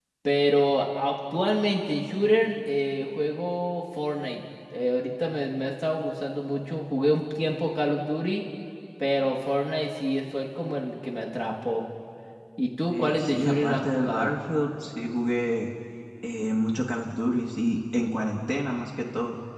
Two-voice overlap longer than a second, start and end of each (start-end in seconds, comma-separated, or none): 12.9-14.3